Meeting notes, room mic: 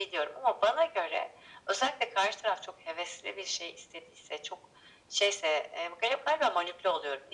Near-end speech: none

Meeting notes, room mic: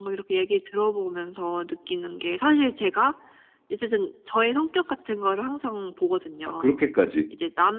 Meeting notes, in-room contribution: present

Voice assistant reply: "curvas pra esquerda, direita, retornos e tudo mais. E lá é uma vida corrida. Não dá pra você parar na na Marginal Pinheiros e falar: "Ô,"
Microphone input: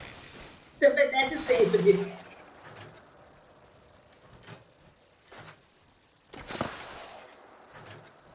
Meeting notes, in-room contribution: present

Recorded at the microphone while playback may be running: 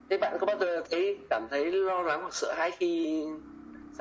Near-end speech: none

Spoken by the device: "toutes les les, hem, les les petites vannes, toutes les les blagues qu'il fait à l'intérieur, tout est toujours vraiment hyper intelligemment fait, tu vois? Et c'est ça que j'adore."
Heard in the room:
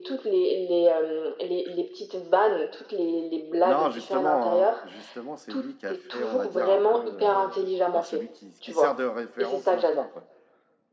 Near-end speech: present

